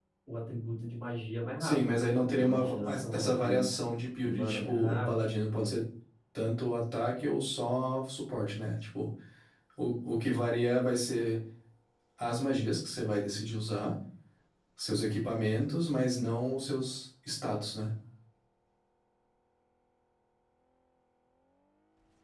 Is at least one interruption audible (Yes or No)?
Yes